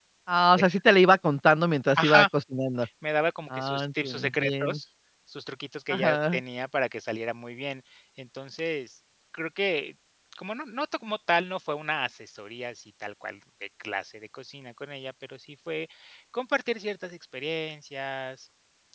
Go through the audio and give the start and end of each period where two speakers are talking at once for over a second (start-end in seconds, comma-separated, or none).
3.5-4.8